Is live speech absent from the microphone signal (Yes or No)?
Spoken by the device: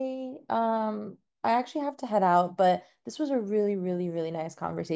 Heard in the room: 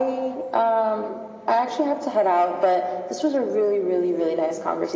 Yes